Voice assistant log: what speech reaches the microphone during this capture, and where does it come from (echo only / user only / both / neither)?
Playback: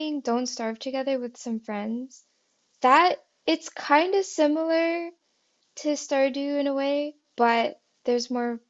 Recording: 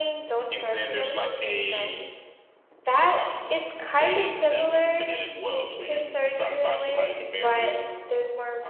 both